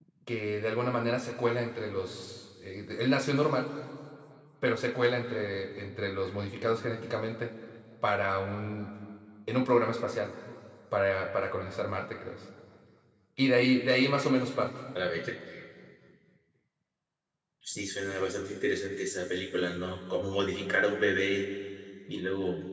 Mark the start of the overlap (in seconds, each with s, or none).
none